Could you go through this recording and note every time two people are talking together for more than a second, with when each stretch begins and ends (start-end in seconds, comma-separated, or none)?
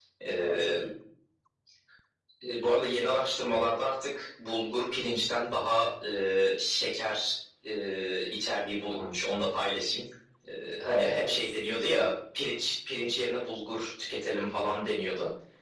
10.8-12.1